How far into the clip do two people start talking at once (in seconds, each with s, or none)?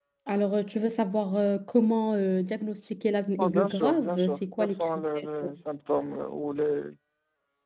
3.4 s